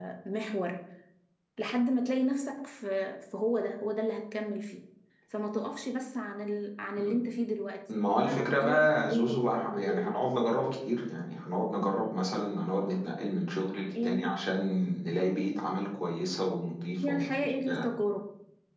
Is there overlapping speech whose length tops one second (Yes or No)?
Yes